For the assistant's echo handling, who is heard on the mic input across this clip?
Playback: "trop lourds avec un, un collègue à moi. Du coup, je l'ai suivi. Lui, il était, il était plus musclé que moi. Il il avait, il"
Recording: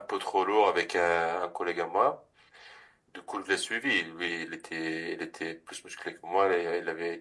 echo only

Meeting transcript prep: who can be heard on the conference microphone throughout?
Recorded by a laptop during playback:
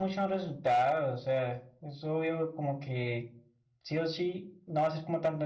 user only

